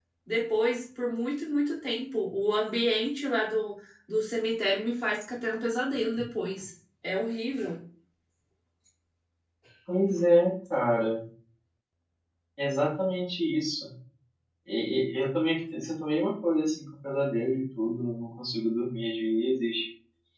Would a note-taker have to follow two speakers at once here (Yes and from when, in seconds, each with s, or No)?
No